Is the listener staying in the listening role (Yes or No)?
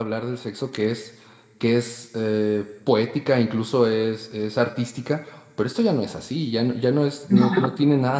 Yes